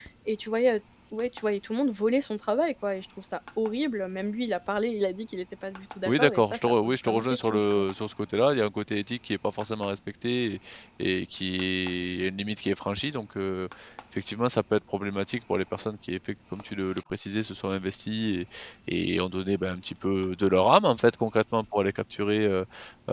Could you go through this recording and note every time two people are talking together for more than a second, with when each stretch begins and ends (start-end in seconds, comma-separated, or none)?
6.1-7.9